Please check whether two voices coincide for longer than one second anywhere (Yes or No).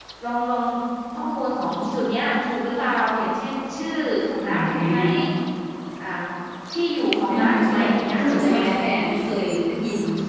Yes